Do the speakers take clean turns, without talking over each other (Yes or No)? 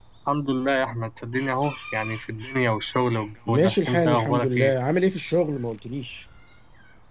No